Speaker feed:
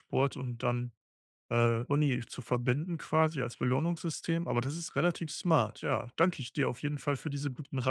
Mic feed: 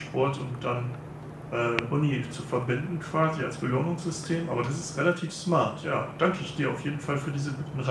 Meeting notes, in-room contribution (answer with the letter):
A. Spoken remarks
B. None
B